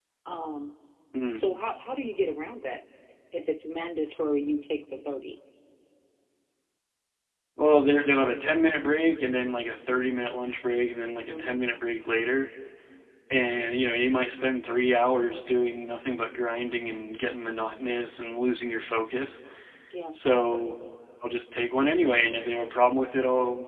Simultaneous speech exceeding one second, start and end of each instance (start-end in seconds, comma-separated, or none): none